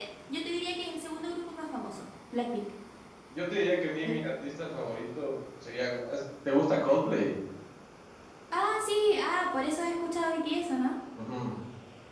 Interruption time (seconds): none

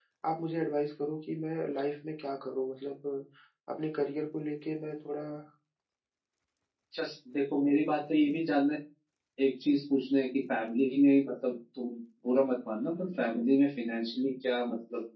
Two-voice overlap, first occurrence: none

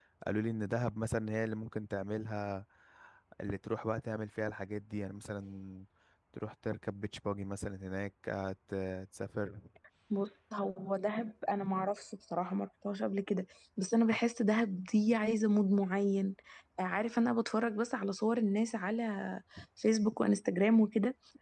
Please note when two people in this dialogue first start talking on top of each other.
none

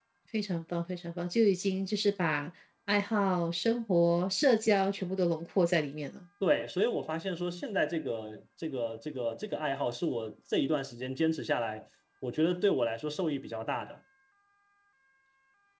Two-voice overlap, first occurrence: none

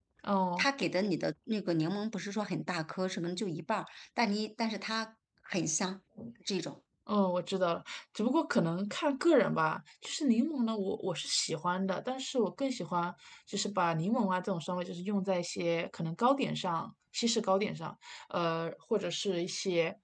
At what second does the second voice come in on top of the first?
none

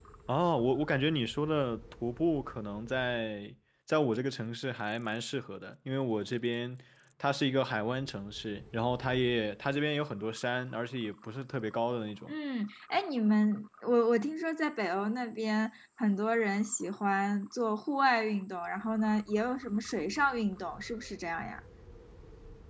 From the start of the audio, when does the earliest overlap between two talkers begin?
none

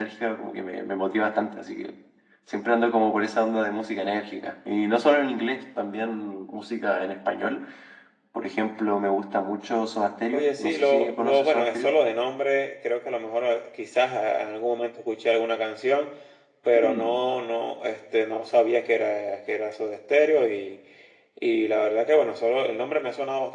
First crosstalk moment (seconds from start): 10.3 s

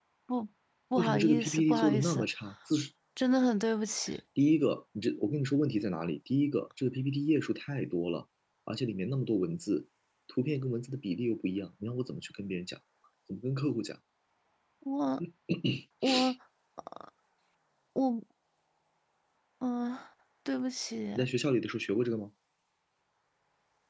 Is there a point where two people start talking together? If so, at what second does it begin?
1.0 s

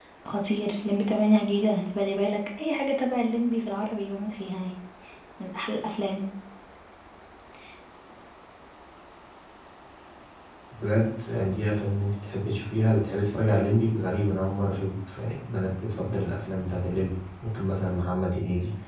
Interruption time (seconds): none

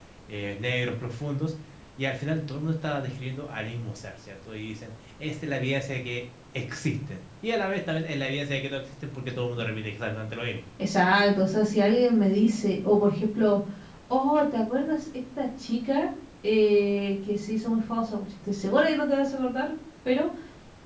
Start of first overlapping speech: none

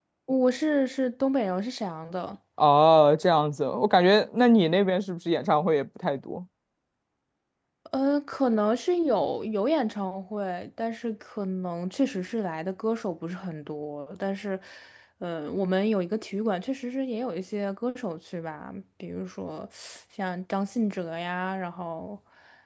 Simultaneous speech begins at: none

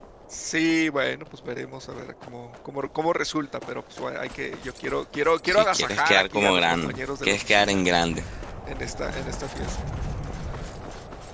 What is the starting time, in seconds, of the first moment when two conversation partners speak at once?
5.5 s

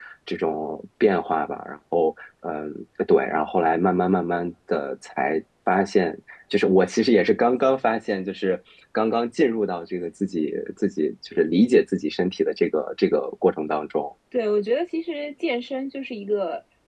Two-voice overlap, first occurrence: none

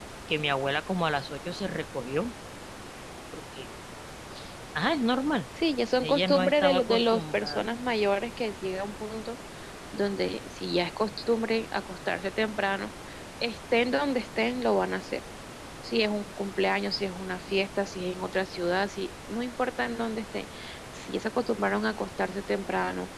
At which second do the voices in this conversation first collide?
6.0 s

